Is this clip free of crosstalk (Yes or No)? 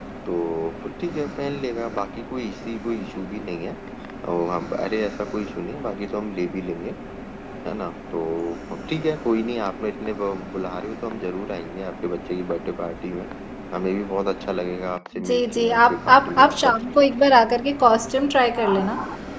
No